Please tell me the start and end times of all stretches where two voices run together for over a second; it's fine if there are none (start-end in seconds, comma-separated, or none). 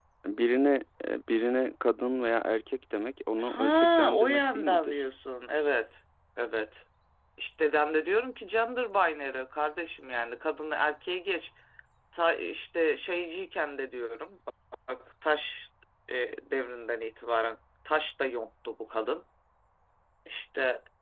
3.4-4.9